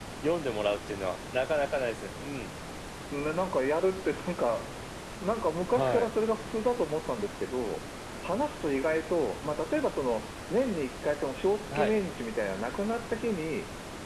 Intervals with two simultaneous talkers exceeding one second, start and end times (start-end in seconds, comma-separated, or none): none